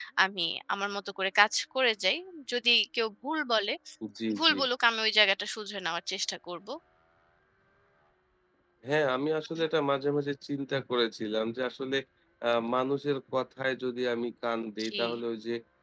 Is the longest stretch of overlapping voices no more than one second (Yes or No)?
Yes